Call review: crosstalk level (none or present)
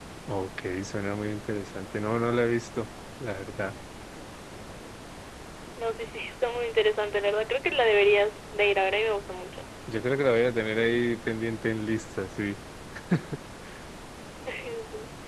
none